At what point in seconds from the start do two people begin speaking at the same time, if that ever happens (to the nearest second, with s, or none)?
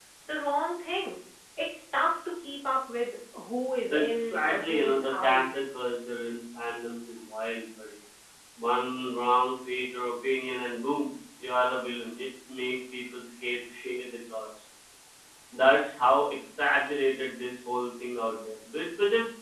4 s